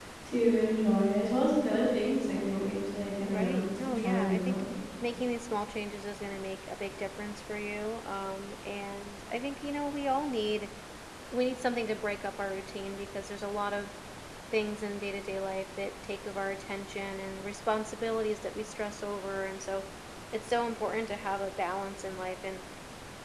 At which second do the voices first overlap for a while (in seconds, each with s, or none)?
3.3 s